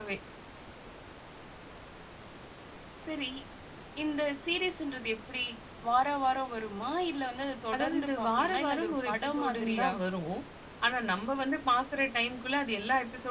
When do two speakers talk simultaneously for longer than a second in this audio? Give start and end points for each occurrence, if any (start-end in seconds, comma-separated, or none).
7.7-9.9